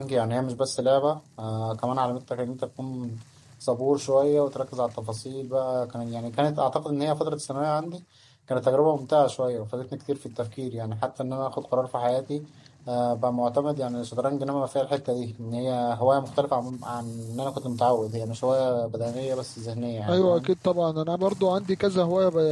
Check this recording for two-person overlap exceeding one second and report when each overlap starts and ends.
none

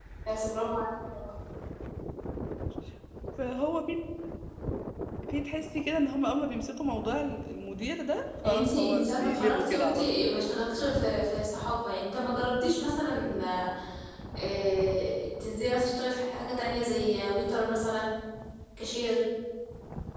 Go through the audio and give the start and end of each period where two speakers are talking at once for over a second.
8.4-10.2

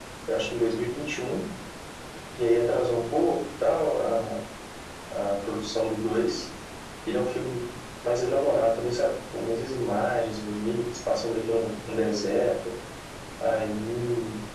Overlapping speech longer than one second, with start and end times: none

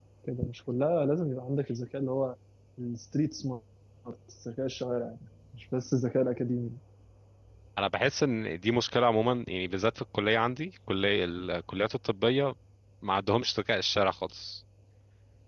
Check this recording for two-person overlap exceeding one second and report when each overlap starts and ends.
none

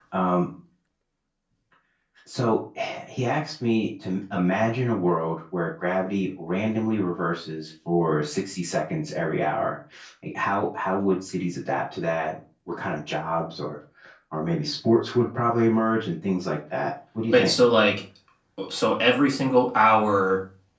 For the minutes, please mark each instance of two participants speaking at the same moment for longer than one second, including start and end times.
none

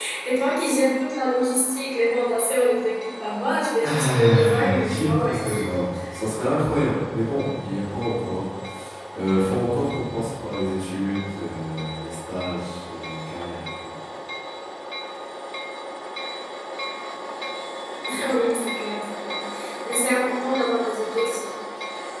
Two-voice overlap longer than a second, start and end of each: 3.8-5.9

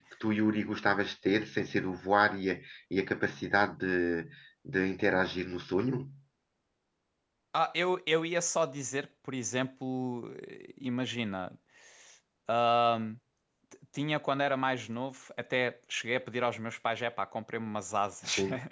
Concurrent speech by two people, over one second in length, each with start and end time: none

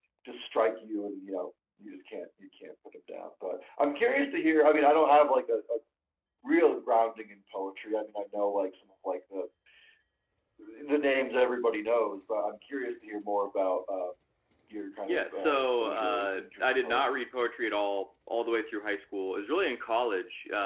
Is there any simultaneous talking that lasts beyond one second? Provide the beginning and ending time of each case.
15.1-17.2

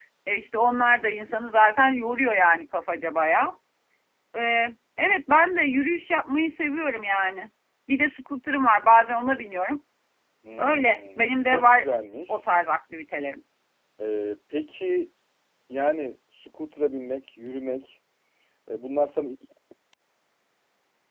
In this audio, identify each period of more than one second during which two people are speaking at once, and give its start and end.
10.6-11.9

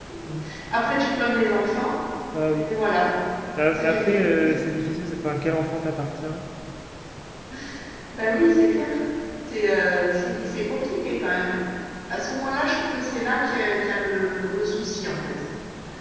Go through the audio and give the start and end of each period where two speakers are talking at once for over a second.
none

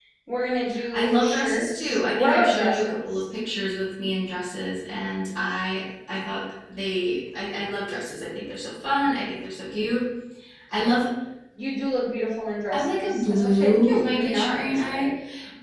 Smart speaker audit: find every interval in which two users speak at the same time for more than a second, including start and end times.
0.9-3.2, 12.7-15.1

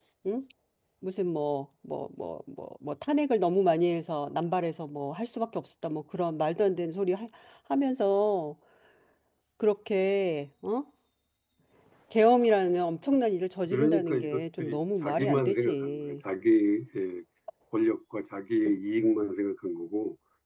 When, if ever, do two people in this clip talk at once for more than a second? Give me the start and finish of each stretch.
13.7-16.2

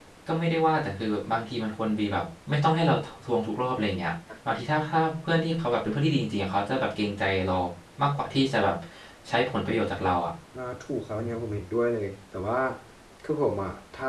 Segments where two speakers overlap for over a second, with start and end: none

